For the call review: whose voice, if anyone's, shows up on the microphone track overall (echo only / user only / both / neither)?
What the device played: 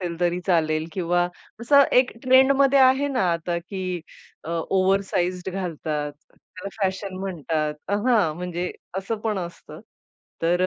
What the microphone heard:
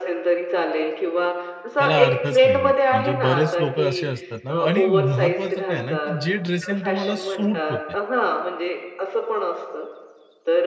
both